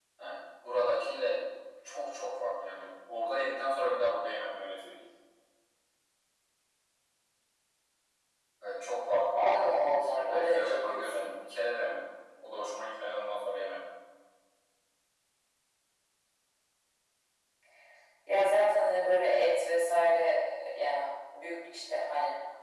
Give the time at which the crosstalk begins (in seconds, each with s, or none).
9.3 s